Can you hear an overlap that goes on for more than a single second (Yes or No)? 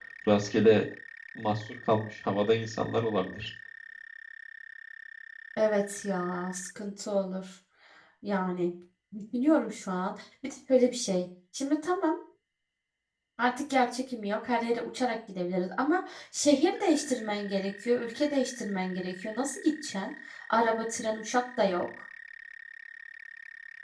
No